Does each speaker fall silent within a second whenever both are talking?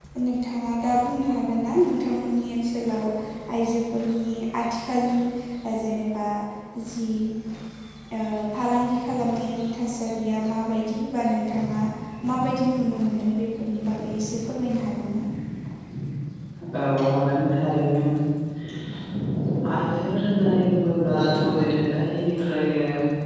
Yes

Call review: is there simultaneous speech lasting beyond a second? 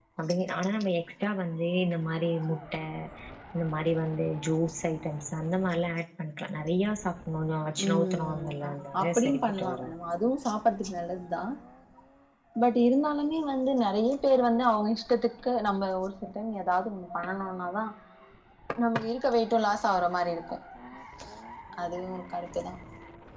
Yes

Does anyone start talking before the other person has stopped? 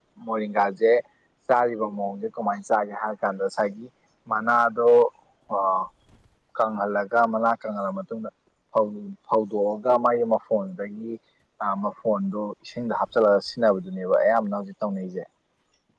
No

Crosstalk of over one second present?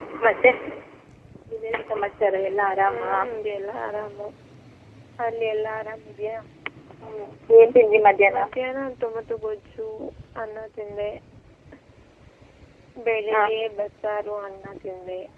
No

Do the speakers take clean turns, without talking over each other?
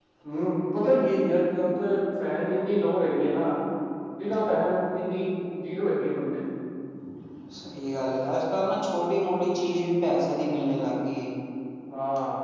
Yes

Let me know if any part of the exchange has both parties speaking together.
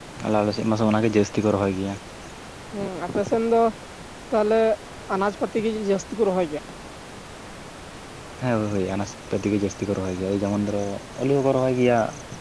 No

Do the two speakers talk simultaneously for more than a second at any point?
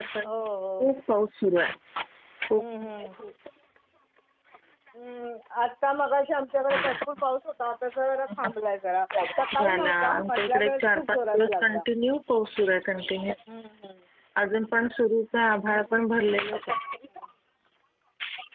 Yes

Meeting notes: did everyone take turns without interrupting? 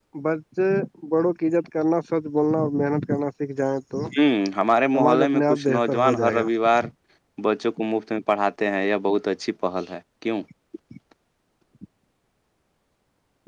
No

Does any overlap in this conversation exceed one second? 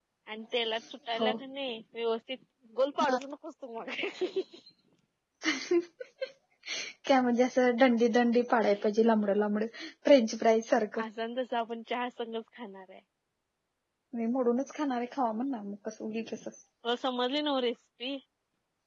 No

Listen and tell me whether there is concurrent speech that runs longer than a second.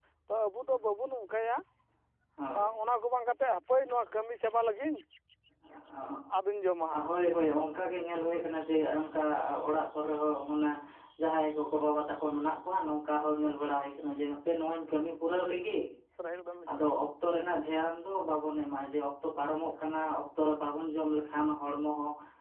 No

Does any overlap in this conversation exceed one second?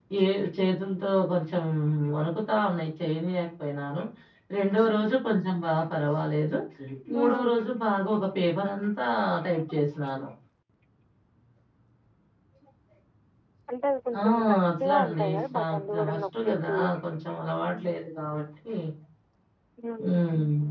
Yes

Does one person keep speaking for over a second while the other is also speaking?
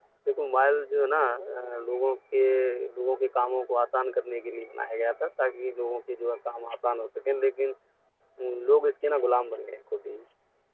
No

